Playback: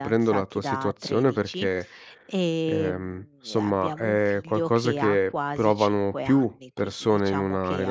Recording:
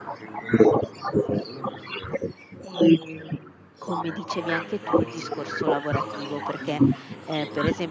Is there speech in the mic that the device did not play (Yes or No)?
Yes